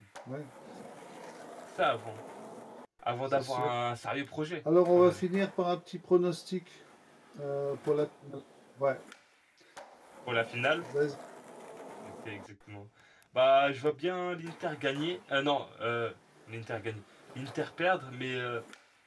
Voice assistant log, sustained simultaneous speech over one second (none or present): none